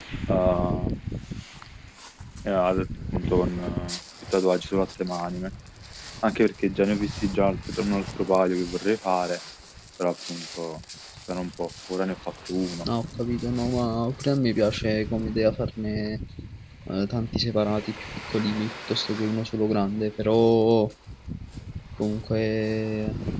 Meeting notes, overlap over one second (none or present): none